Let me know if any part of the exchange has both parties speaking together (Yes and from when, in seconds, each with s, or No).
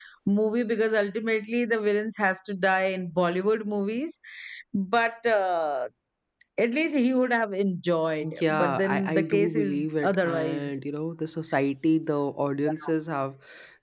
Yes, from 8.2 s